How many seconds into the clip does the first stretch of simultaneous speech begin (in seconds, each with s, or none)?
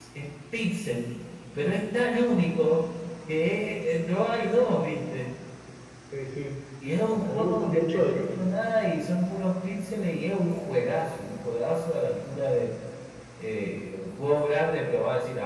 7.0 s